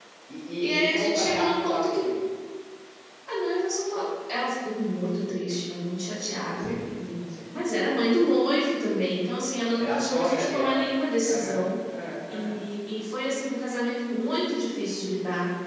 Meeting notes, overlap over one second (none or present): present